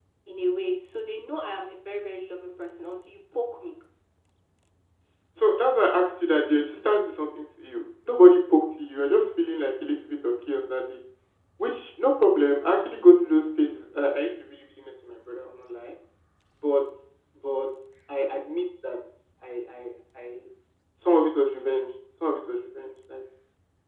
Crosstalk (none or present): none